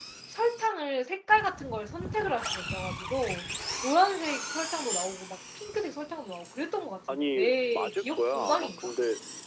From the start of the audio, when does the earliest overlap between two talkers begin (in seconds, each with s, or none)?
7.1 s